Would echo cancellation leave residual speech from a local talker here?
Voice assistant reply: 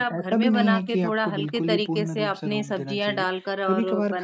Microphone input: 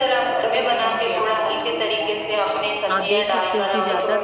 Yes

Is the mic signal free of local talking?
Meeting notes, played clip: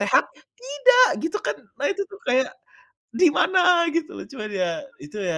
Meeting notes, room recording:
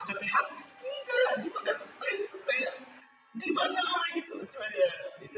Yes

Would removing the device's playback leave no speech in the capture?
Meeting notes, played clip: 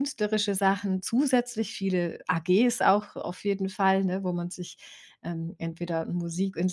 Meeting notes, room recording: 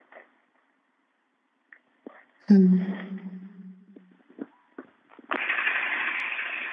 No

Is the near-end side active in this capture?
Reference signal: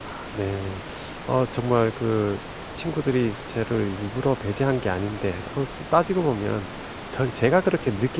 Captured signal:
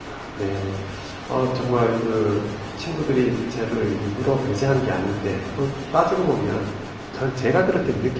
No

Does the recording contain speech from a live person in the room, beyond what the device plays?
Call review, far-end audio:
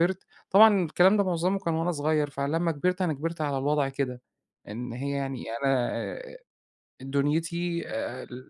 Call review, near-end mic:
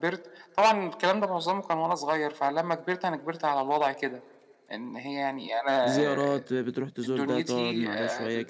Yes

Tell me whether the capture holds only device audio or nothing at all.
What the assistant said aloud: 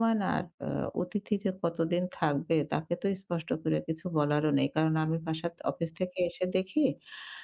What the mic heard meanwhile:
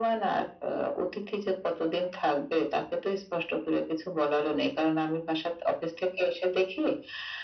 Yes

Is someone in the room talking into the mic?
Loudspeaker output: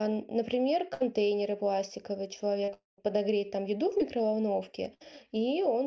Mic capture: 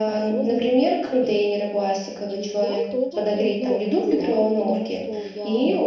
Yes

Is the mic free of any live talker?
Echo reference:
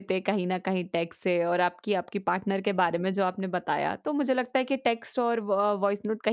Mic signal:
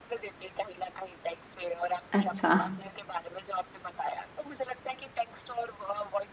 No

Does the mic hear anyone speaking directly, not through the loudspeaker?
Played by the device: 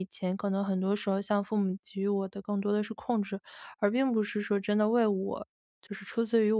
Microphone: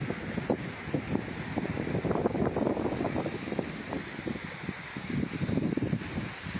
No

